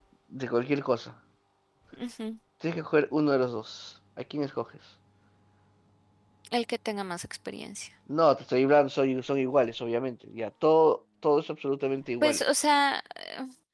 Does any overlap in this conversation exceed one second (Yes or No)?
No